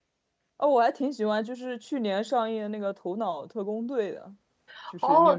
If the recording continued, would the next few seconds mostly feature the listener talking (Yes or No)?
Yes